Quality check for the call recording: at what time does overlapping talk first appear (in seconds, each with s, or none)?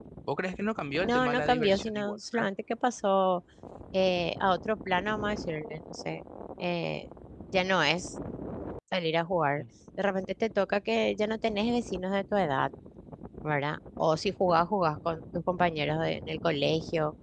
1.0 s